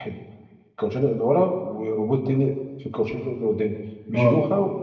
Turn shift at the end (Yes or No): No